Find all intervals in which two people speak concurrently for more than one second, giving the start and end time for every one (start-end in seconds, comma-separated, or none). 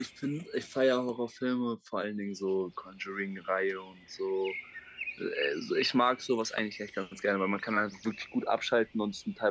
none